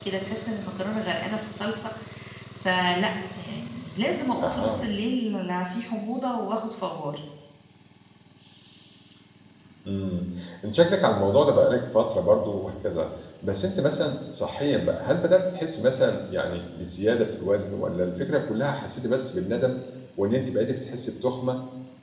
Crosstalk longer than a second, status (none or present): none